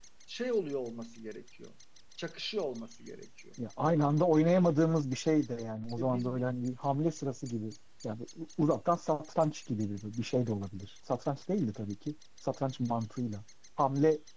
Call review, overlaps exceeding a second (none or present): none